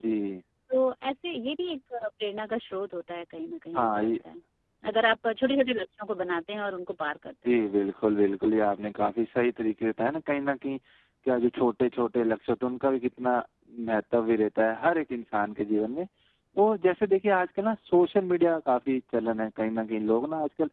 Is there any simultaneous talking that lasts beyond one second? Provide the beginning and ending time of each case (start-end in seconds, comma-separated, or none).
none